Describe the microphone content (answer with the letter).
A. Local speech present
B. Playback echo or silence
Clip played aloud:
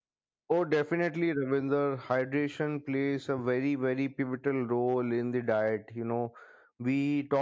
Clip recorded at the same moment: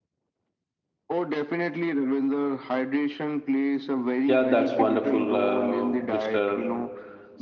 A